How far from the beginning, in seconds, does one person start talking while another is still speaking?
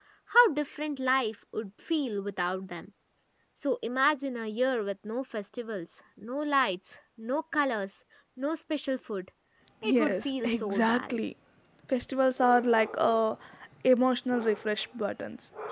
10 s

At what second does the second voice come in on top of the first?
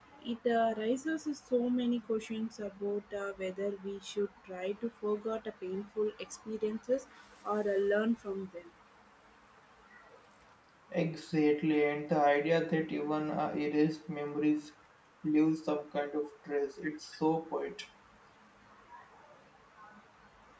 none

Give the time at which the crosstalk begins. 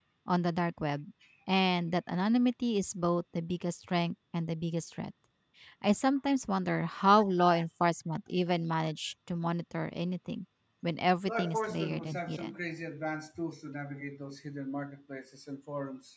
11 s

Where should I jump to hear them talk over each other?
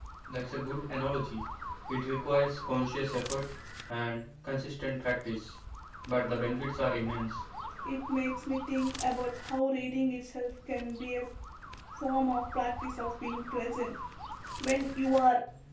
none

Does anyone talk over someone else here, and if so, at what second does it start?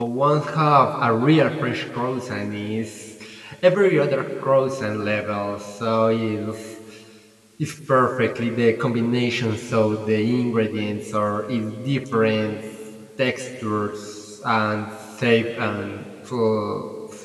none

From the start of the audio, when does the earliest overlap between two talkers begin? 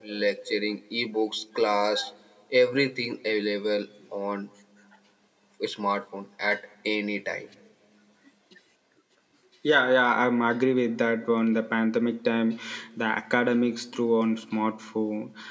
none

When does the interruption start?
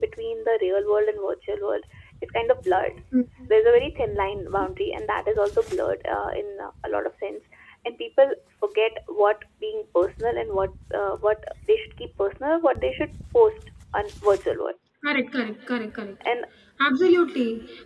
none

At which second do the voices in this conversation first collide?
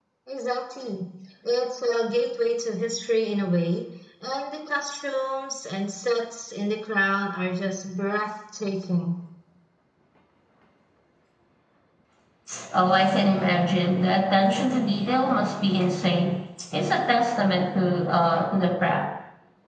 none

